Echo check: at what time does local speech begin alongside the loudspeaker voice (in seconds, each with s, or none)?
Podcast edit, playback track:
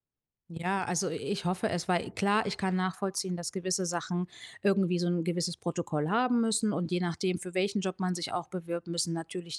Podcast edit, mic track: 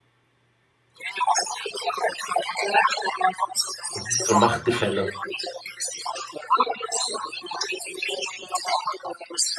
3.9 s